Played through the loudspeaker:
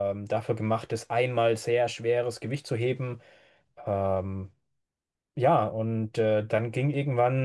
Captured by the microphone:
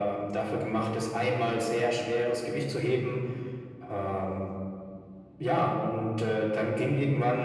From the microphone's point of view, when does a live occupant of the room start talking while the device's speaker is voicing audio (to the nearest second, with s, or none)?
none